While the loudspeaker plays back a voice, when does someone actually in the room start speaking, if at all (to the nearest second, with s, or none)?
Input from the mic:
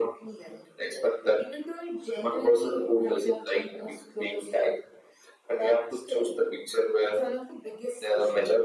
none